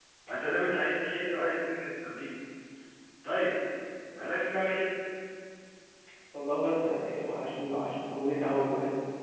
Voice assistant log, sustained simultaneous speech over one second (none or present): none